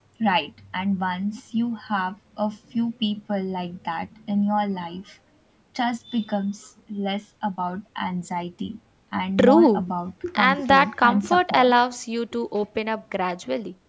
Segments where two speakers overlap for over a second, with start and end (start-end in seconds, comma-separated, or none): 10.4-11.7